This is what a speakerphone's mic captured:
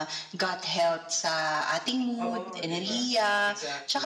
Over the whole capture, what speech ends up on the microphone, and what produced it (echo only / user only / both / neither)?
both